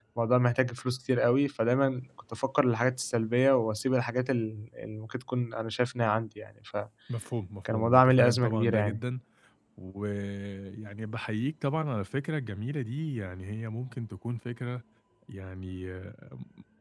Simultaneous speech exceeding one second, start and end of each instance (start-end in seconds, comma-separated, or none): 7.7-9.0